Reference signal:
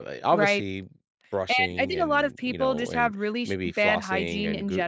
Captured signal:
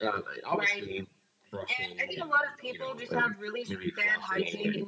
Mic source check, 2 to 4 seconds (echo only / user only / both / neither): echo only